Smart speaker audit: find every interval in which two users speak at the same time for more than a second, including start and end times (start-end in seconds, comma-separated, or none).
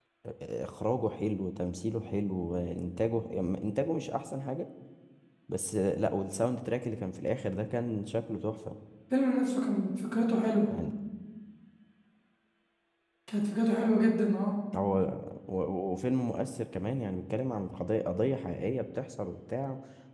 none